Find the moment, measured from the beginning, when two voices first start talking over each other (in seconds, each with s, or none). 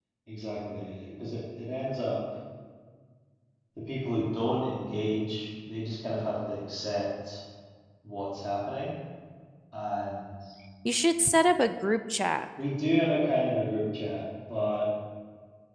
none